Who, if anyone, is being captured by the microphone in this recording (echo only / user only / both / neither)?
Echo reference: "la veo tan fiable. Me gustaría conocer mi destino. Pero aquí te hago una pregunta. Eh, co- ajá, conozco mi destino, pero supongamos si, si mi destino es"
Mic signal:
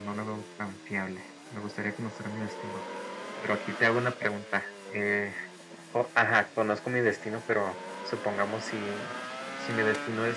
echo only